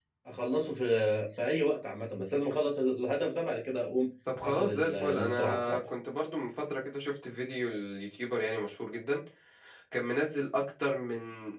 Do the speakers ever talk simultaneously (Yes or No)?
Yes